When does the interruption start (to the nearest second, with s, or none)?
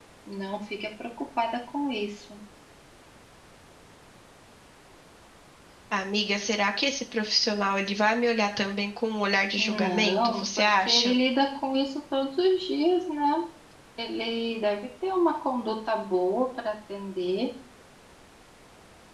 10 s